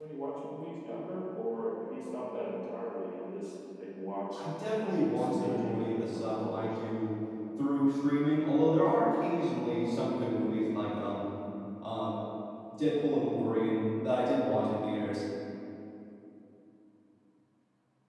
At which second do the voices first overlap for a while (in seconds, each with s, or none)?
4.3 s